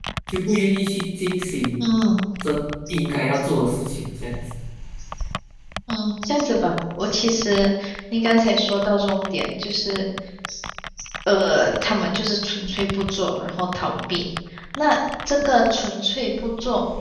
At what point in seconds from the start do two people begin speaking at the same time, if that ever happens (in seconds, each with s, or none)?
none